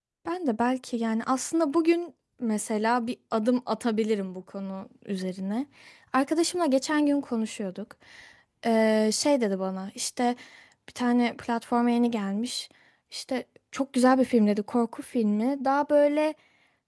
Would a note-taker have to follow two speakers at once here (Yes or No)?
No